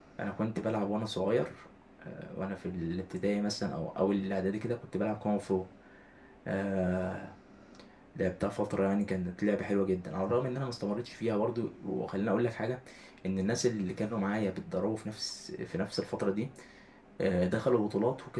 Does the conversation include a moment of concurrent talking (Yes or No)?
No